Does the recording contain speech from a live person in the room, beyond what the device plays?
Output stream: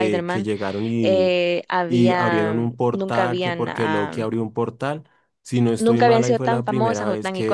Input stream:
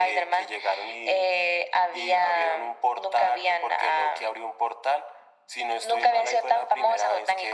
No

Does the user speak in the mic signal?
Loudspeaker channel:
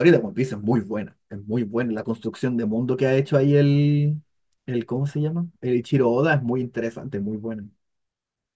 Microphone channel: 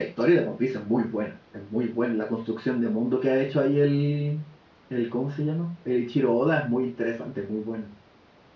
No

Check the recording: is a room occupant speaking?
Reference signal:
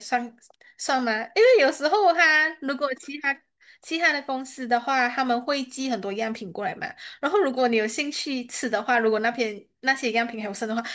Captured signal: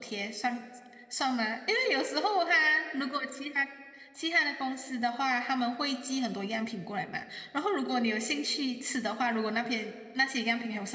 No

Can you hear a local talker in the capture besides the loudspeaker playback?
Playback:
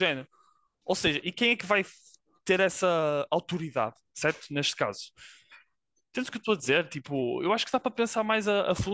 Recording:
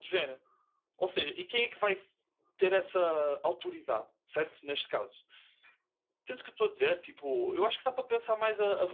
No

